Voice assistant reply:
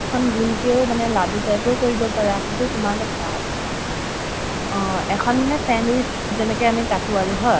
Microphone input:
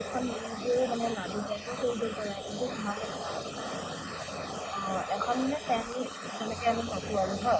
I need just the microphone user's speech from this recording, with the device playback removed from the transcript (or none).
none